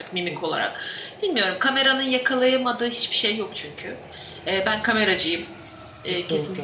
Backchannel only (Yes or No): No